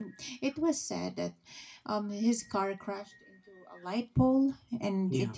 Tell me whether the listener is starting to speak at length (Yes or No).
No